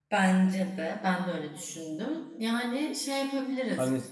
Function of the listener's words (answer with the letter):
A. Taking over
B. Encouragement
A